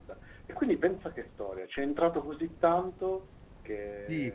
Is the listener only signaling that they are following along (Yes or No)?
No